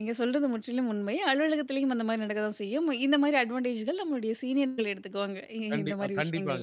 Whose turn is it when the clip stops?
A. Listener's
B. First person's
A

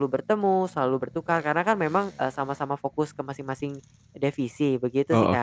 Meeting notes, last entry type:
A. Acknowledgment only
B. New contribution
B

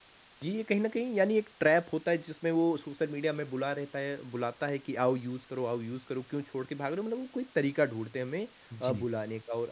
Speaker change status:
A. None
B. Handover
A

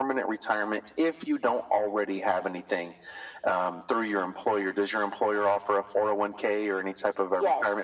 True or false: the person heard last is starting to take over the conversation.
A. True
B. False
A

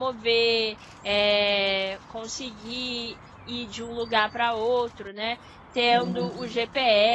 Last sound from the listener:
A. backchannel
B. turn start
A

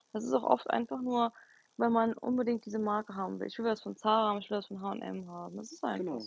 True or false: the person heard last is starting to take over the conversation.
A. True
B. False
A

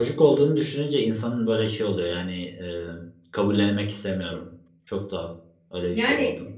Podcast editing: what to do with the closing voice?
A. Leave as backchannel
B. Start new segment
A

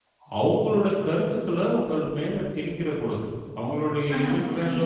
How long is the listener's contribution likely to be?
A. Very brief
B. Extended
A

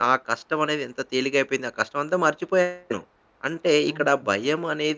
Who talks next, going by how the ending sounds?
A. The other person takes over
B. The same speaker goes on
B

